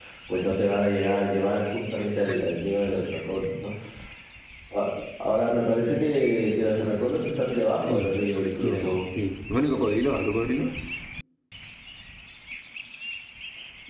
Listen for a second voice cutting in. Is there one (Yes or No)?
Yes